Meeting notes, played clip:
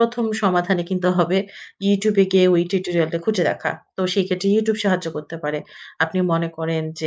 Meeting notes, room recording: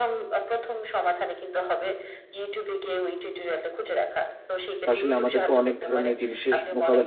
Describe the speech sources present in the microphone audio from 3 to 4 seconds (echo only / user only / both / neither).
echo only